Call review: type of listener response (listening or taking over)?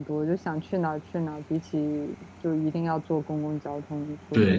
taking over